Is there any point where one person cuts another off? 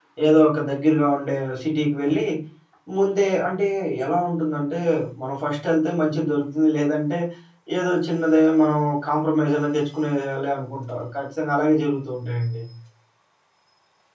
No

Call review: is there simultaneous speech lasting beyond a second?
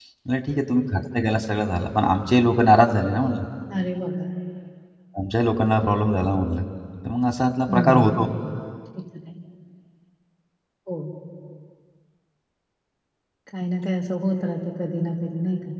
No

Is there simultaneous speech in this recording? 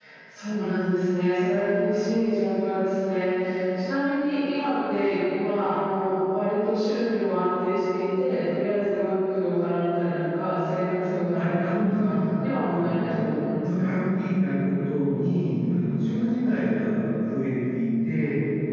Yes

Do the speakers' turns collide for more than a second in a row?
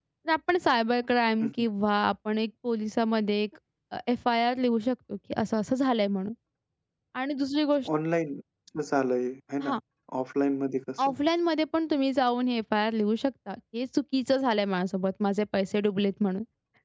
No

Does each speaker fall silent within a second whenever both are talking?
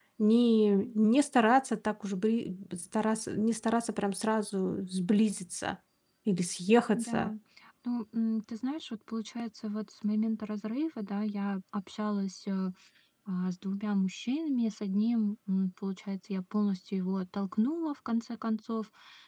Yes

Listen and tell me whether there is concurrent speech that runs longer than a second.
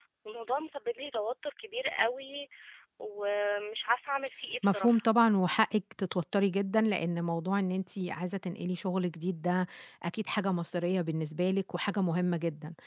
No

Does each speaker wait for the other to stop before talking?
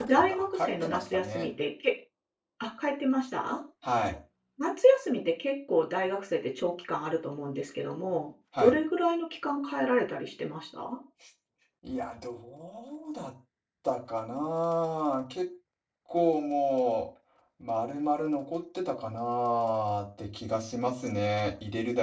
No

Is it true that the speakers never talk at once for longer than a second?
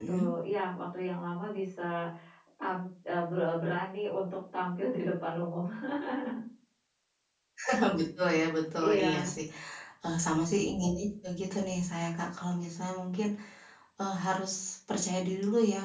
Yes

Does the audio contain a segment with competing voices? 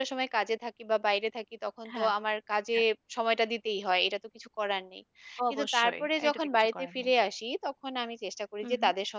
Yes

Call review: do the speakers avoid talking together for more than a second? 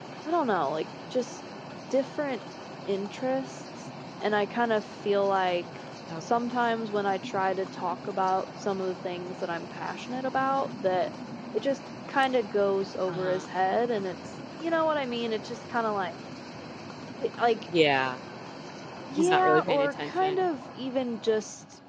No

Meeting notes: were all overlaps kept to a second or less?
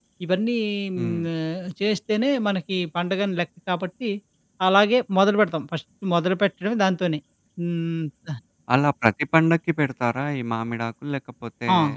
Yes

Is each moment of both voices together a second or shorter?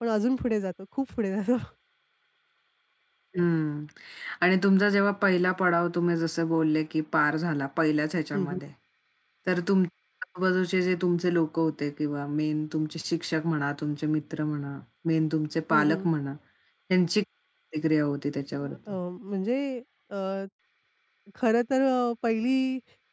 Yes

